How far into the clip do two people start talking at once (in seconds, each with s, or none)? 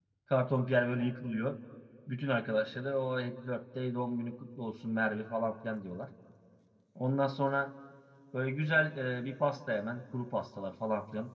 none